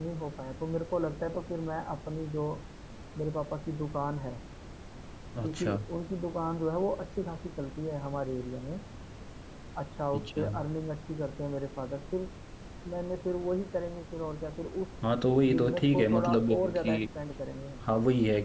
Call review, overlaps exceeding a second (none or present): present